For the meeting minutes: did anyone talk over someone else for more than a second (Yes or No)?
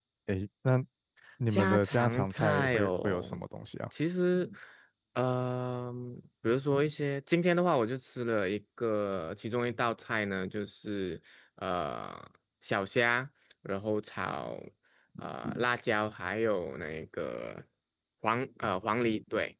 Yes